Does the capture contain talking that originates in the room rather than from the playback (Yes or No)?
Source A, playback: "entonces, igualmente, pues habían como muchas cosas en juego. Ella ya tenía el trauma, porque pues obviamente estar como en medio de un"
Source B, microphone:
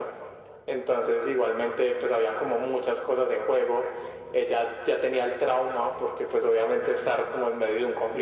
No